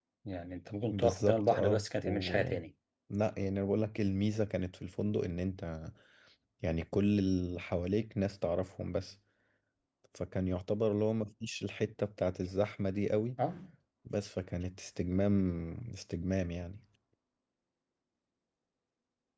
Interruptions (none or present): present